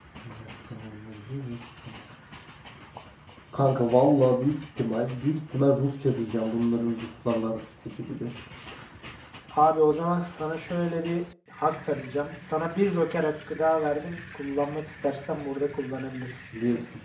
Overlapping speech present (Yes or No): No